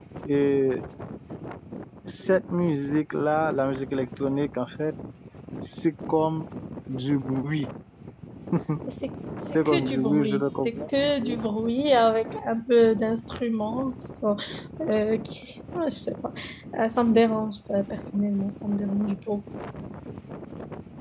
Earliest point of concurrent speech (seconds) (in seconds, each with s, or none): 9.5 s